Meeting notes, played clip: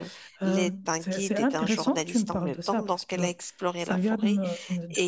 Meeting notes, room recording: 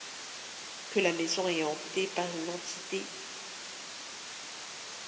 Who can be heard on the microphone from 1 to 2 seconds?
user only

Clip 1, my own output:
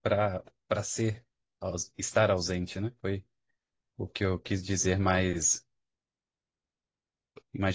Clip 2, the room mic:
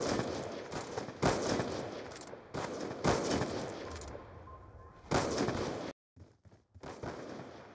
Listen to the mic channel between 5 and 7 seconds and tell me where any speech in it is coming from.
neither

